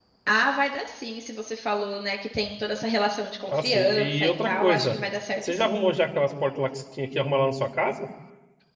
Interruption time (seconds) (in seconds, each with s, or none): 3.5 s